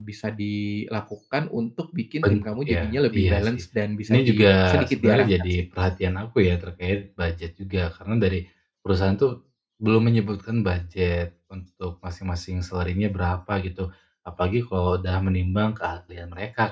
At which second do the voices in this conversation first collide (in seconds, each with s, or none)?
2.2 s